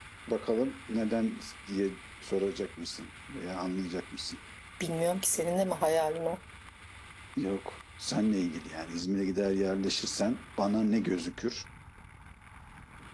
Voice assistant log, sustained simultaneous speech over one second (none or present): none